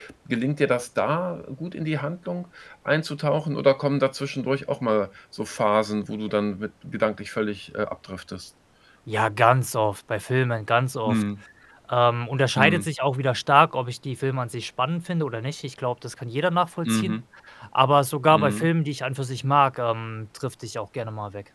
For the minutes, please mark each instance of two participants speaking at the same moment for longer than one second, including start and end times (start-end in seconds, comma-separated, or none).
none